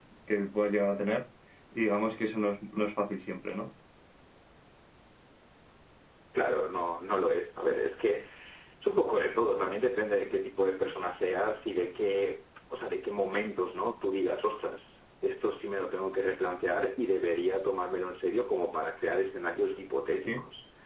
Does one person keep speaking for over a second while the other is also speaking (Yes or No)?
No